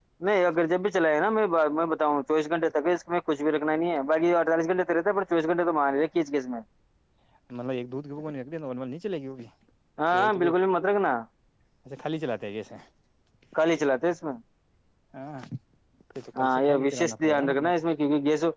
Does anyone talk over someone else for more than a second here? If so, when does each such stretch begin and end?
16.4-17.7

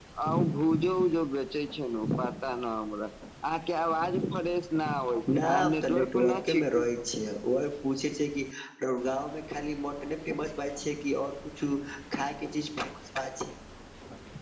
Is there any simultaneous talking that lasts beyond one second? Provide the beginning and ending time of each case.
5.3-6.9

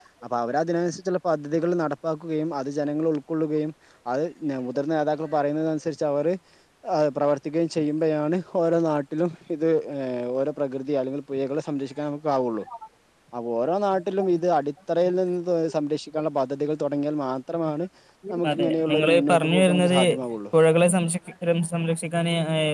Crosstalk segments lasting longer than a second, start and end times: 18.5-20.0

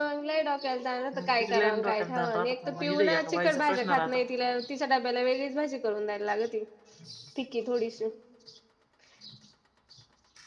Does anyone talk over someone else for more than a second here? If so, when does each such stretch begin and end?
1.1-4.1

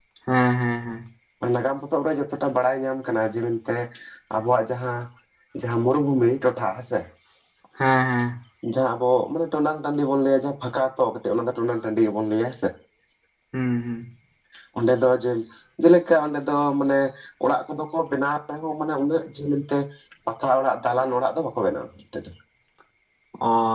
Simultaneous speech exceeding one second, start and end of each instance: none

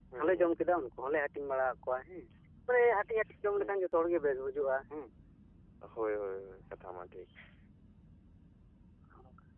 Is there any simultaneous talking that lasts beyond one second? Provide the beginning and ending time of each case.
none

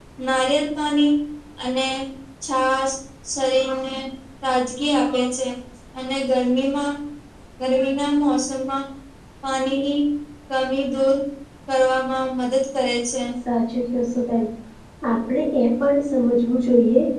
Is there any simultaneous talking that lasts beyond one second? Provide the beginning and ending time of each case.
none

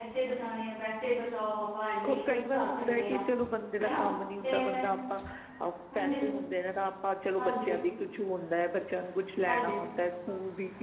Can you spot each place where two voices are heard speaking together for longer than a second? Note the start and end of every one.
2.0-3.2

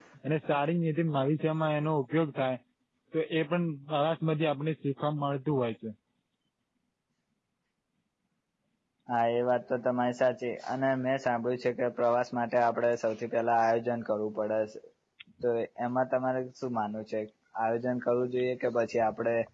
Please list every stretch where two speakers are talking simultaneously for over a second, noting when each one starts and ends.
none

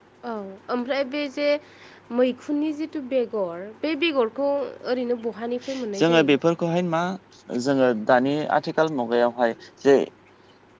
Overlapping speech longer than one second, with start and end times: none

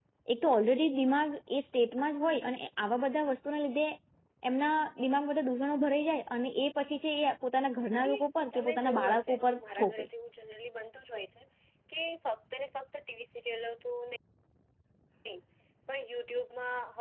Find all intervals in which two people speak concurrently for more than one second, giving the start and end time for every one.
7.9-10.0

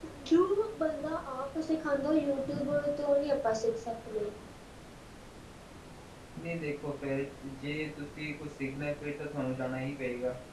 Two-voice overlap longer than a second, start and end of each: none

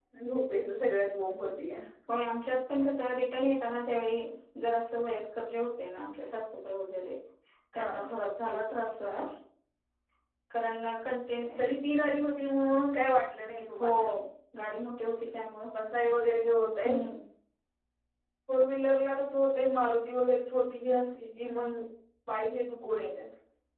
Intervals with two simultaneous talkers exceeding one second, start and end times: none

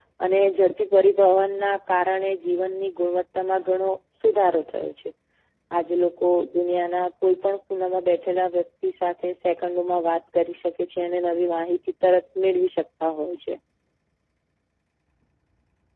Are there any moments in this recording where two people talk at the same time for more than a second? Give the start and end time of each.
none

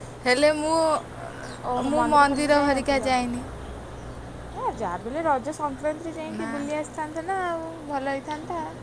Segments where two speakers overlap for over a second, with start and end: 1.9-3.1

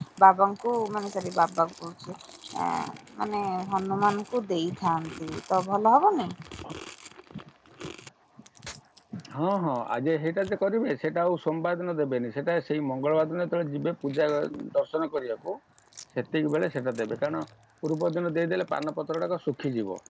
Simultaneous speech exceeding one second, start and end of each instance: none

